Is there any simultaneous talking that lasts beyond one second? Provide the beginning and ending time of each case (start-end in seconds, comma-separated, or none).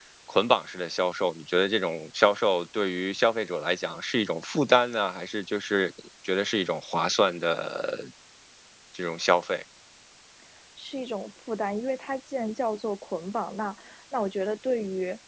none